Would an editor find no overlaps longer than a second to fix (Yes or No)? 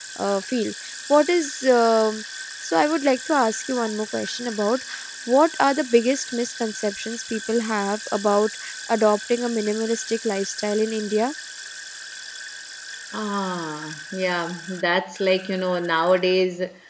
Yes